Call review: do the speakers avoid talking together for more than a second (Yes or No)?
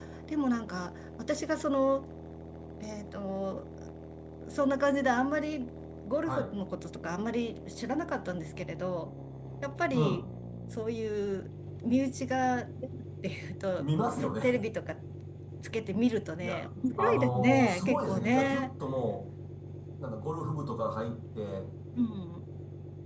No